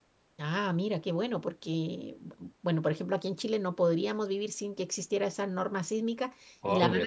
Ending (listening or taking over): listening